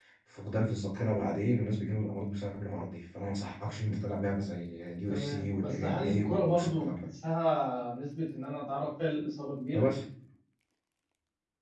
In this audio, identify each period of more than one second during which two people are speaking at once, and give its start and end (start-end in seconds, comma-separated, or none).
5.1-7.1